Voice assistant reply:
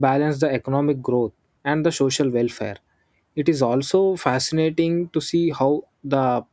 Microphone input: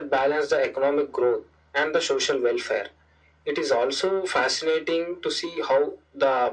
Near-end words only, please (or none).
none